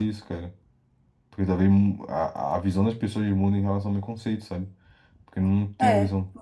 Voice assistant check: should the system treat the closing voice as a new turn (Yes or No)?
Yes